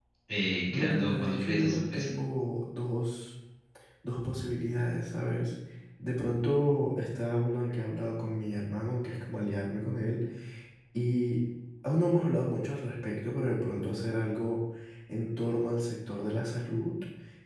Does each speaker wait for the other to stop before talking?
No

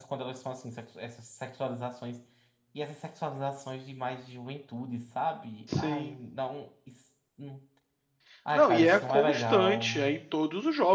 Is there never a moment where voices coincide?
No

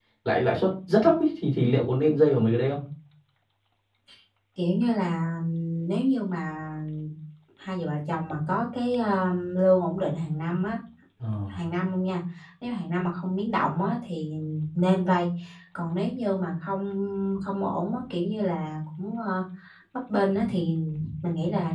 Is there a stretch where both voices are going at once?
No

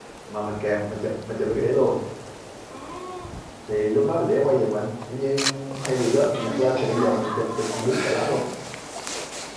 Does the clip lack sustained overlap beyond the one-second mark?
No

